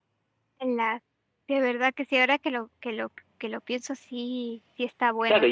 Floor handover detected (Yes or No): Yes